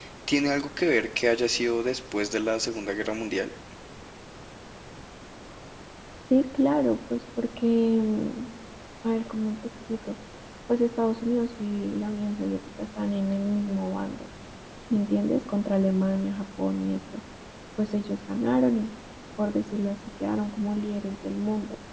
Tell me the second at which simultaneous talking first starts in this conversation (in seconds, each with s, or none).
none